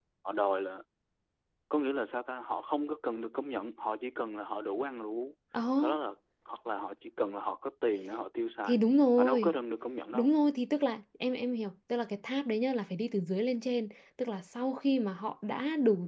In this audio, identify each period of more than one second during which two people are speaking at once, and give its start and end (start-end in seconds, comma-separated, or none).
none